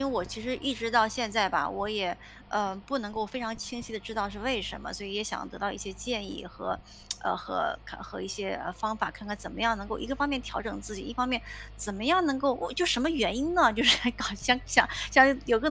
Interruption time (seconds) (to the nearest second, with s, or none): none